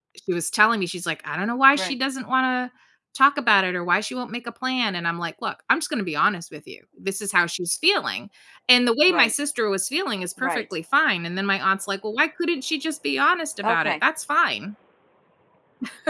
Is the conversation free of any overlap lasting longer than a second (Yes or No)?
Yes